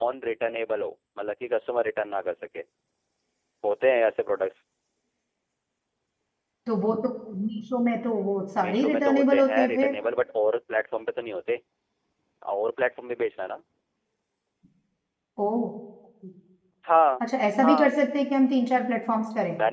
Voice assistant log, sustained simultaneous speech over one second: present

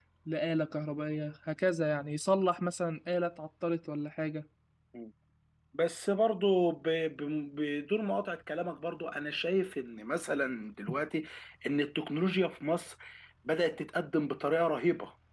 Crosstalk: none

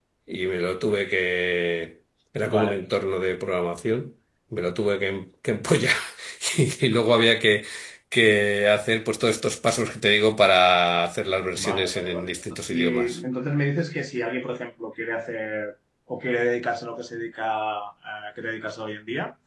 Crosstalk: present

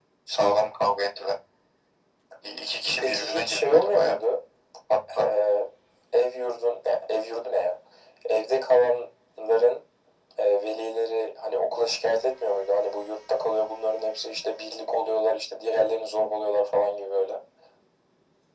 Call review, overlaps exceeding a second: present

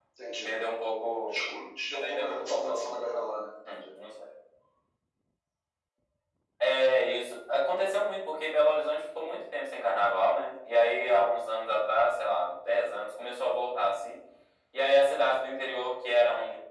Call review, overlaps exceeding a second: present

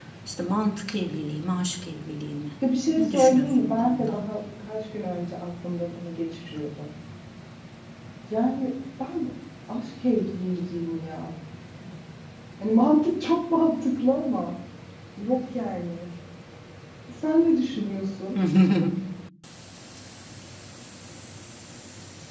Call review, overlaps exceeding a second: present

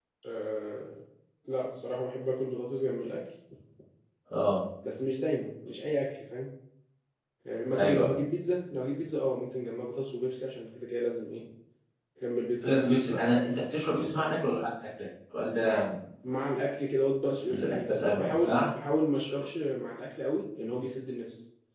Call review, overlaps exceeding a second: present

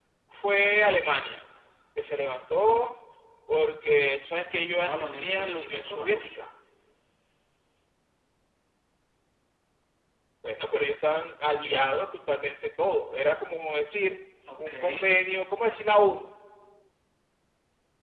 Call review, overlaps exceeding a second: present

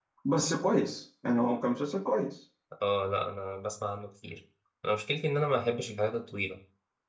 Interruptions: none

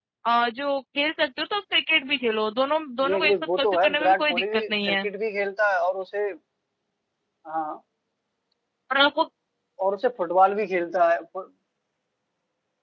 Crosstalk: present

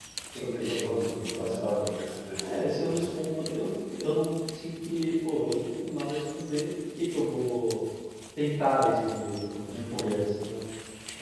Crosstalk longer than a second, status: present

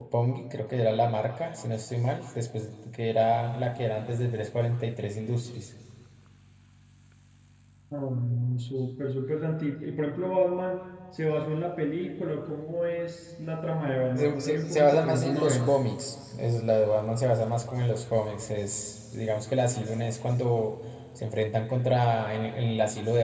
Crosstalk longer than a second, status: present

